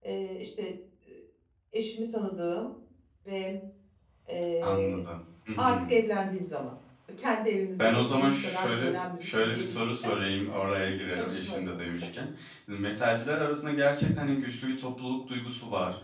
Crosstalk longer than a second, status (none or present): present